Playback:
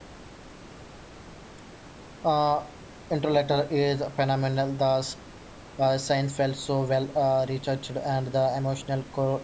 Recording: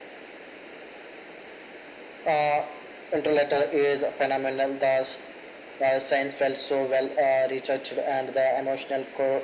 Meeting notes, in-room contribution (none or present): none